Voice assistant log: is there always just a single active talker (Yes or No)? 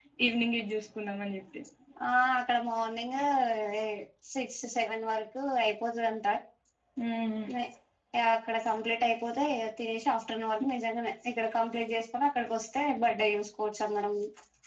Yes